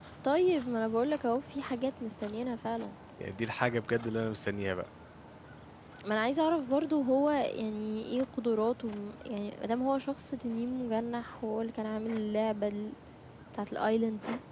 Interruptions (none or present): none